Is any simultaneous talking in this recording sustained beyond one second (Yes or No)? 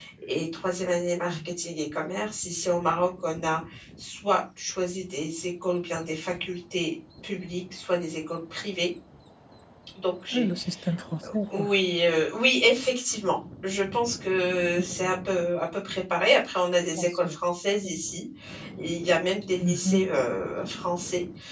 No